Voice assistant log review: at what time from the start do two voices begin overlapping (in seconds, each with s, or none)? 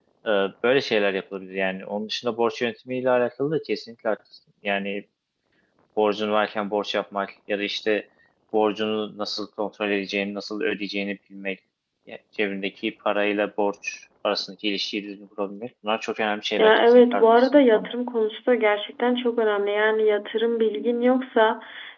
16.6 s